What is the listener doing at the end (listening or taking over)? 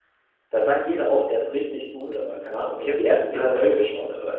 listening